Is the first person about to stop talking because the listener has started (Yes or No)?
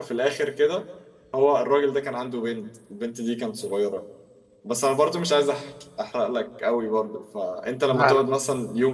No